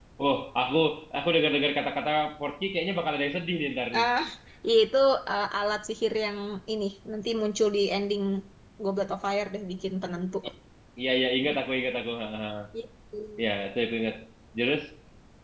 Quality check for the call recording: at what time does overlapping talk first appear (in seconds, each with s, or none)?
none